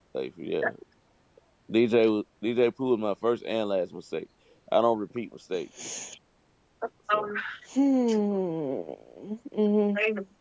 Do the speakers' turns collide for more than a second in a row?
No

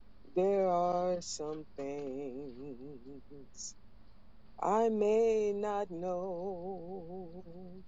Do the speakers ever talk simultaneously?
No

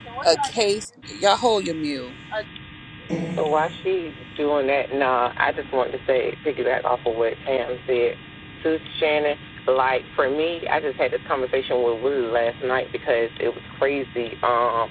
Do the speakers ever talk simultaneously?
No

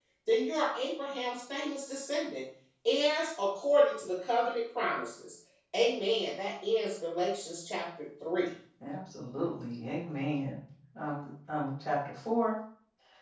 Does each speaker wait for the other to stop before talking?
Yes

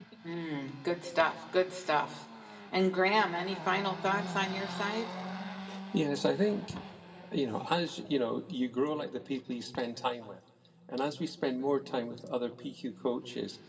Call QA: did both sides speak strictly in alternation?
Yes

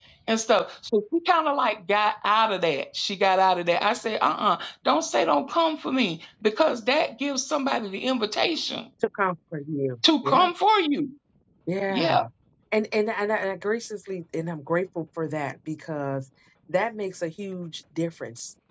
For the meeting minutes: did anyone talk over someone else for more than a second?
No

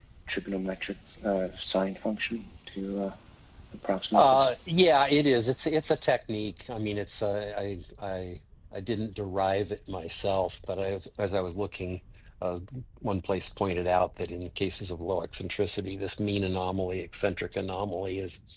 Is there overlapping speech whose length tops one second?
No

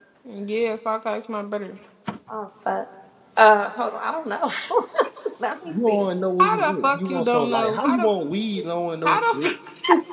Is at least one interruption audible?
Yes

